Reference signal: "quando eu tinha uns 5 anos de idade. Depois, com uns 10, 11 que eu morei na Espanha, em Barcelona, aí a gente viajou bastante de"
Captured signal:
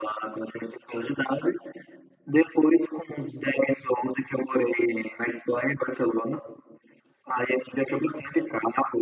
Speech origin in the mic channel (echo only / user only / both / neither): echo only